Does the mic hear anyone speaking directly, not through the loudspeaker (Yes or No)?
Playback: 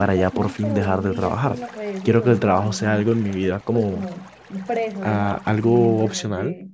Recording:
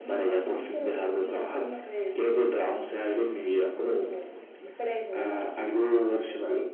No